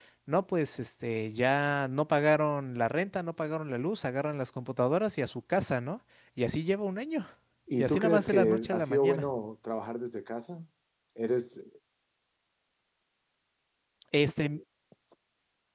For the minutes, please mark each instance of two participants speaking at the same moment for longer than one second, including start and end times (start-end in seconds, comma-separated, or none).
7.8-9.3